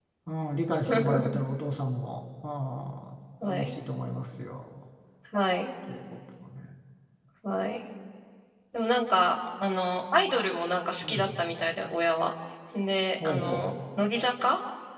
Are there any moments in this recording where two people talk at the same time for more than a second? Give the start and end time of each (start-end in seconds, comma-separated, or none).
none